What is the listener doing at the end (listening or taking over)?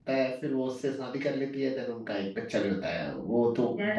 taking over